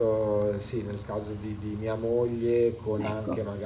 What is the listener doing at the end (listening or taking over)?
listening